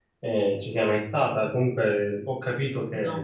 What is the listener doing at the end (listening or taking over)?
listening